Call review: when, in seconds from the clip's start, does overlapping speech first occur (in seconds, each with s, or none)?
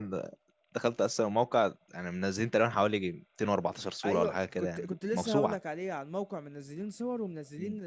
4.0 s